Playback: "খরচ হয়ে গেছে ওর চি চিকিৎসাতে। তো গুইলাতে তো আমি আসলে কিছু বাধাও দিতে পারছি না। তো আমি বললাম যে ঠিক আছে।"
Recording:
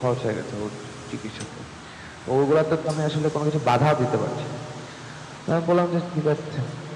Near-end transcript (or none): none